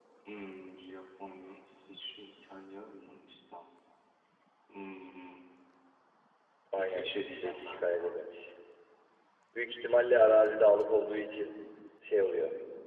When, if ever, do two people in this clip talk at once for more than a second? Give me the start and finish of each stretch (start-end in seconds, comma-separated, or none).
6.7-8.1